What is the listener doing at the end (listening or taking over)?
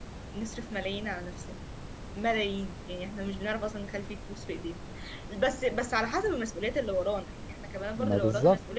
listening